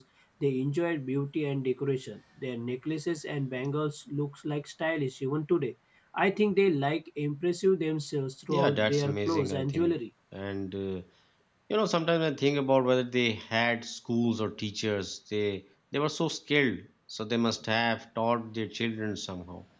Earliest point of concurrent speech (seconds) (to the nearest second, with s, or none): 9 s